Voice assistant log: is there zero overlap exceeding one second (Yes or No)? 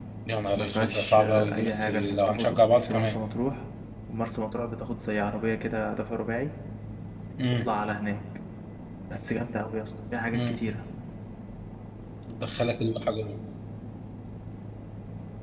No